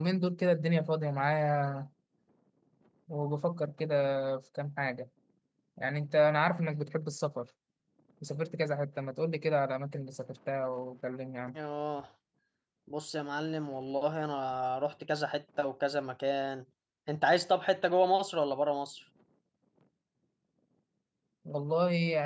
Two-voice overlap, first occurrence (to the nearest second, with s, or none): none